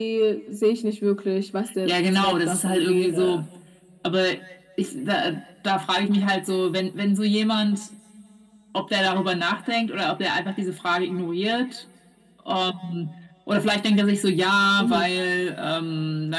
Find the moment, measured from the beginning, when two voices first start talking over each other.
1.9 s

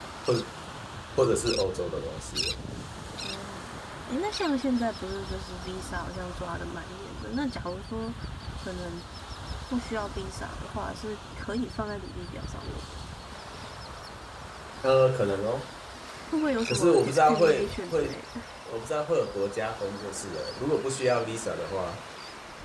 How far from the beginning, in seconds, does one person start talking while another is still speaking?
16.7 s

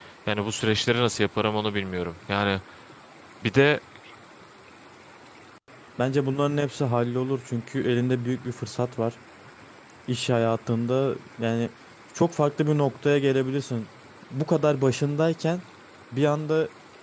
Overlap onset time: none

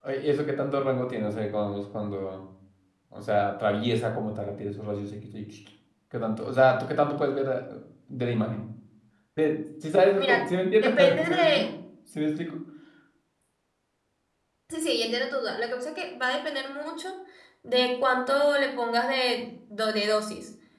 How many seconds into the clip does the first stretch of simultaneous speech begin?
10.2 s

